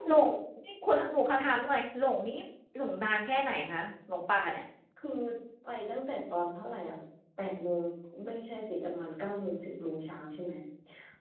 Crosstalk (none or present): none